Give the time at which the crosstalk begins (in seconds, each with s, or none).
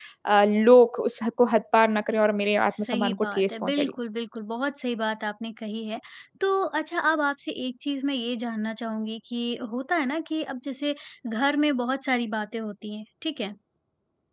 2.7 s